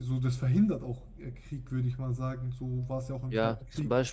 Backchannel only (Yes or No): No